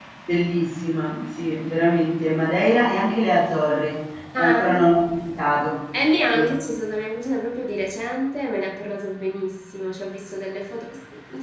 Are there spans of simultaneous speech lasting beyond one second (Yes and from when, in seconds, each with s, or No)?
No